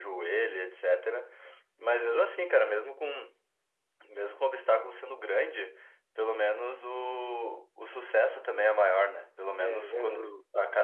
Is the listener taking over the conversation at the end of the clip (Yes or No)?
No